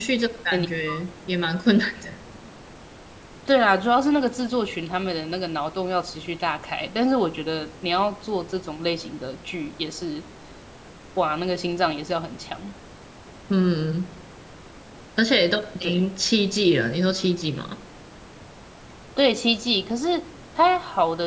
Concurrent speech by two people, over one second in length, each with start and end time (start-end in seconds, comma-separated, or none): none